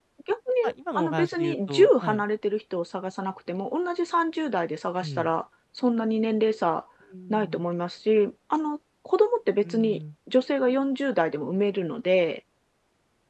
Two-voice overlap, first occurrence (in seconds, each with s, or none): 1.0 s